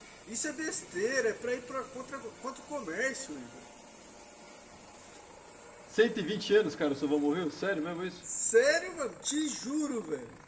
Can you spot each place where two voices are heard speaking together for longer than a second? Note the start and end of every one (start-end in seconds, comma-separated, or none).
none